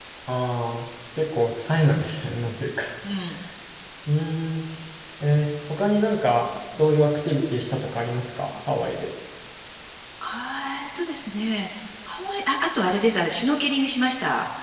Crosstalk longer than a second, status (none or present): none